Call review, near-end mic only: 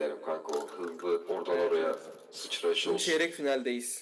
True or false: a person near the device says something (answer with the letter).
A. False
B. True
B